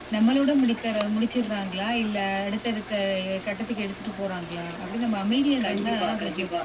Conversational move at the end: taking over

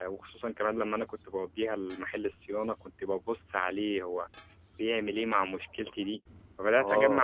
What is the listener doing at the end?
taking over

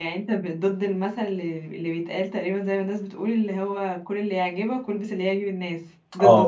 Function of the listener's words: taking over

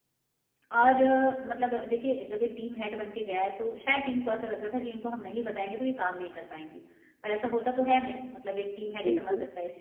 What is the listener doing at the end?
listening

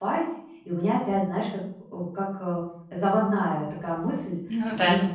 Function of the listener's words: listening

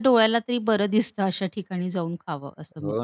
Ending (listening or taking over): taking over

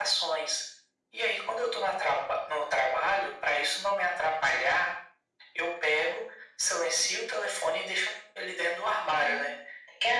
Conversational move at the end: taking over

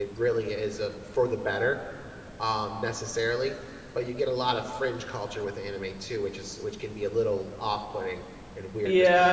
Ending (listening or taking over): taking over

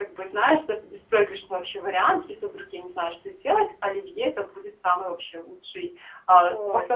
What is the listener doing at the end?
listening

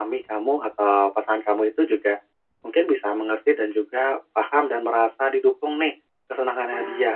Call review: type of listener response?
listening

